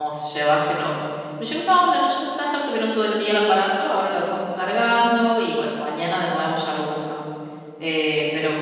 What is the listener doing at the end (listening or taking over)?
listening